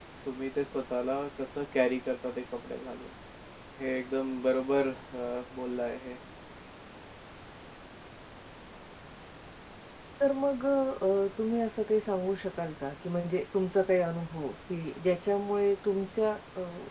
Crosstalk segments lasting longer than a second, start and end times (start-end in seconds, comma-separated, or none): none